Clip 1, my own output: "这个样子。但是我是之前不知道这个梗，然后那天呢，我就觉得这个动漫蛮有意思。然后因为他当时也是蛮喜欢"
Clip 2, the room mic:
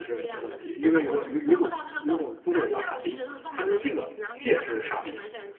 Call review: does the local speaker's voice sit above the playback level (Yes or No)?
Yes